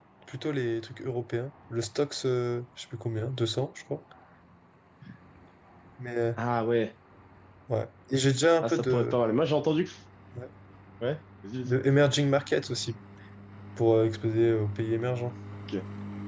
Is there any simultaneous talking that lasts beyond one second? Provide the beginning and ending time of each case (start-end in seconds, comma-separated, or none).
none